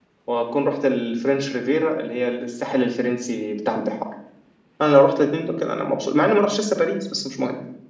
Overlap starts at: none

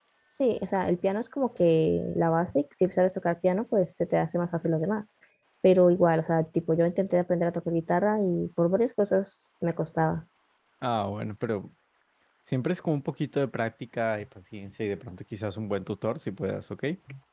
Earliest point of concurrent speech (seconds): none

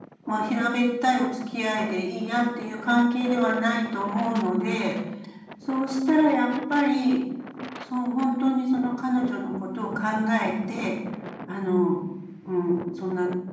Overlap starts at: none

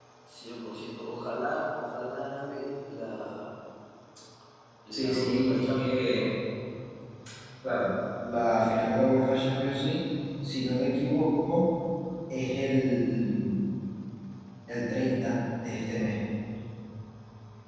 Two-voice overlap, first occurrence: 5.0 s

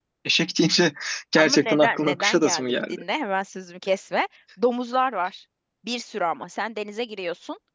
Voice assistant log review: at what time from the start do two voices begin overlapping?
1.4 s

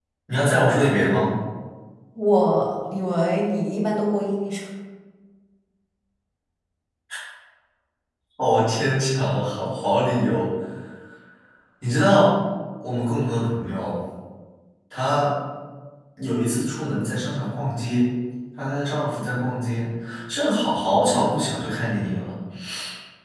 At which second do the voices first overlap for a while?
none

